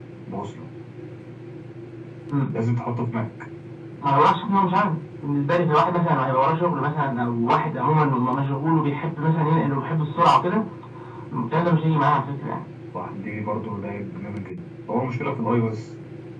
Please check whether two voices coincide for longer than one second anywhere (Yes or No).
No